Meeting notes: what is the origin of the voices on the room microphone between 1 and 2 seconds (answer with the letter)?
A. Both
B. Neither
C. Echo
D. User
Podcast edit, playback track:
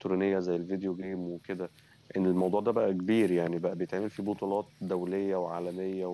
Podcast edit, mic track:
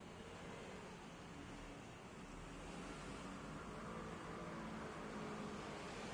B